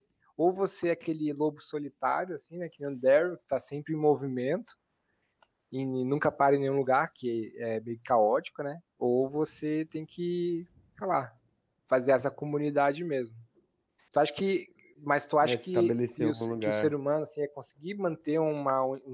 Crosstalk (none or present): present